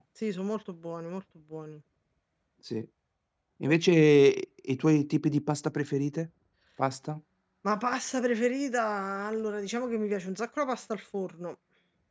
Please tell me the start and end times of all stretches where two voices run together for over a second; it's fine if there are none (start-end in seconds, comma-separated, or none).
none